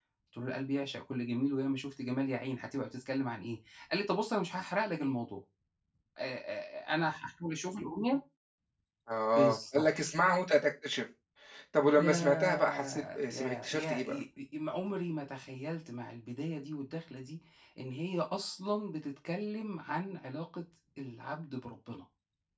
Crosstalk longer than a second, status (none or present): present